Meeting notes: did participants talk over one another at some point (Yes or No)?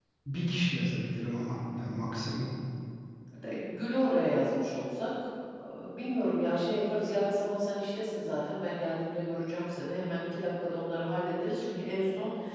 No